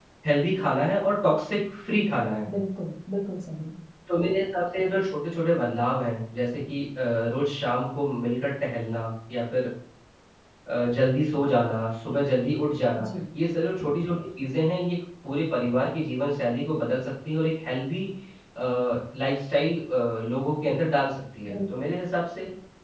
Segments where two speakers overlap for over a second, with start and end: none

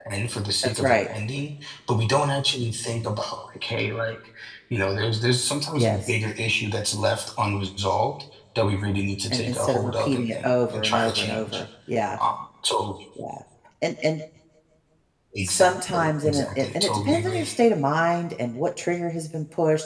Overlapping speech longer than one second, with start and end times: 9.3-11.6, 15.4-17.5

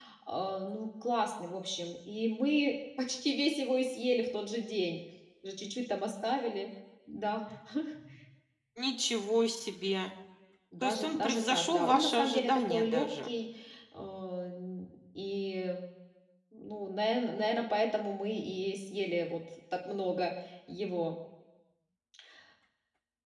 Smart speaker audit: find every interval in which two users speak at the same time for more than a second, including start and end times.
10.8-13.3

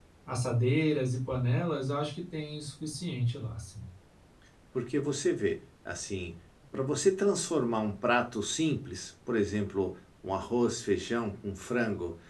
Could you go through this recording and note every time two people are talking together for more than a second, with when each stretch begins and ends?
none

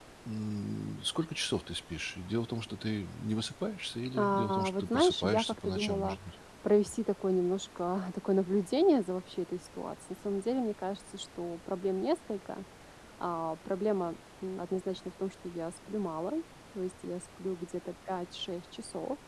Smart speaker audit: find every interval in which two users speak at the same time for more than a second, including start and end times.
4.2-6.2

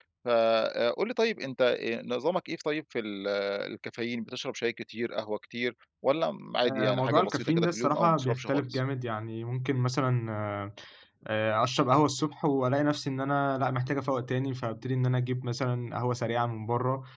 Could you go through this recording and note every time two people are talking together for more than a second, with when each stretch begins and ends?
6.7-8.8

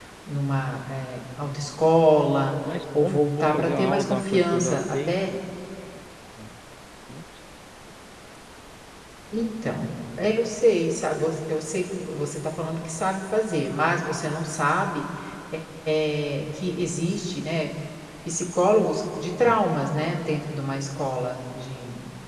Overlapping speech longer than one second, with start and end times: 3.0-5.2

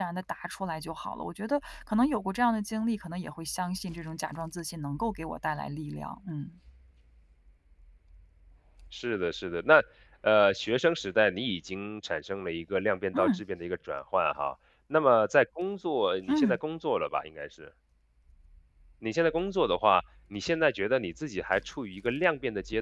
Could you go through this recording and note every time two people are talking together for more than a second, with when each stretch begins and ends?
none

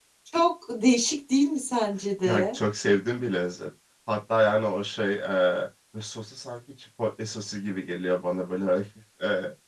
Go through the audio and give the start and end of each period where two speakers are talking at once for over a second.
none

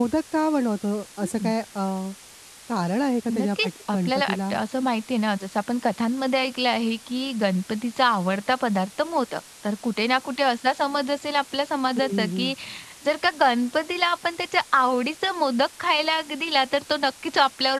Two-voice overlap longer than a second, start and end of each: 3.3-4.5

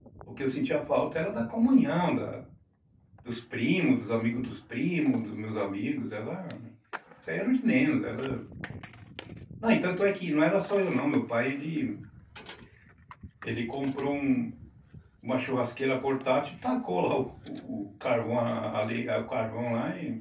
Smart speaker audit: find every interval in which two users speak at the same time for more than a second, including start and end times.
none

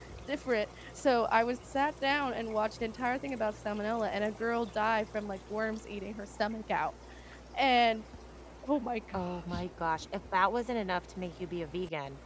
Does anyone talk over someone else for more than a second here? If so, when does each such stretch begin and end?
none

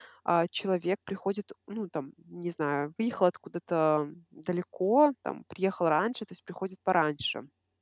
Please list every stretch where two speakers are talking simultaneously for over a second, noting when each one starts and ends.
none

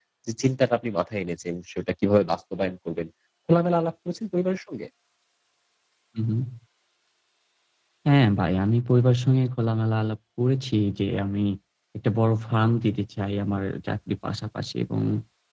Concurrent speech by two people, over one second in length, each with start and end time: none

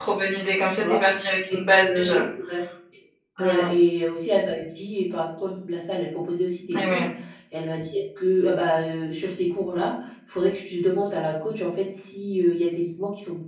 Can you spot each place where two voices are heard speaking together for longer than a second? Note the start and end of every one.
none

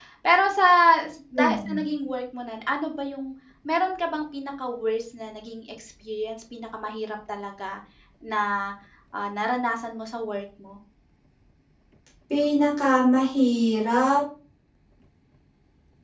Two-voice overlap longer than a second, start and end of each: none

